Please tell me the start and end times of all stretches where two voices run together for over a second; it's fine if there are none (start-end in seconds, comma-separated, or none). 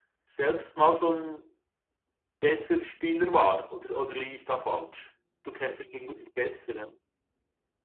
none